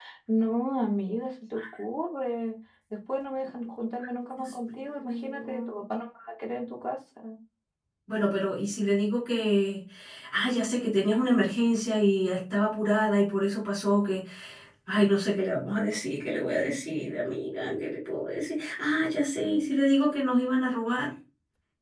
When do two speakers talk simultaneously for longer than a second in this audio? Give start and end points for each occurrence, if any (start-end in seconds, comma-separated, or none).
4.4-5.7